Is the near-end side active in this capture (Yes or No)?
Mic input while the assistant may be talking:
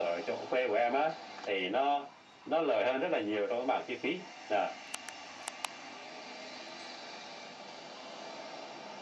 No